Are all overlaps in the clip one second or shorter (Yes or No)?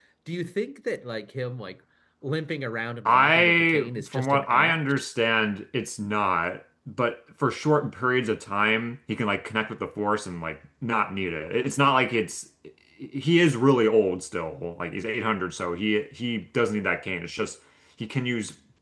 No